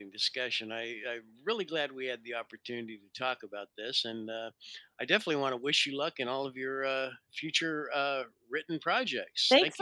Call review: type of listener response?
taking over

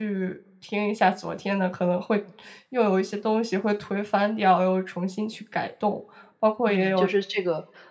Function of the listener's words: taking over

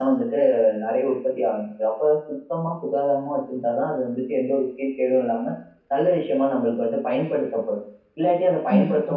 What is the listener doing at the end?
listening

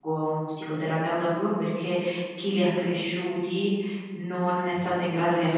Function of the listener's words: listening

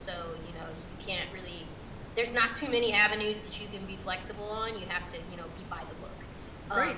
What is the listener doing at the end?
taking over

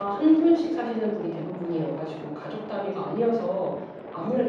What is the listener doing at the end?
listening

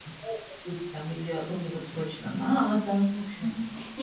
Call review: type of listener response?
taking over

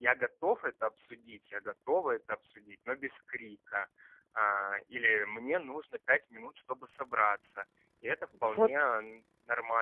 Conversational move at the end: listening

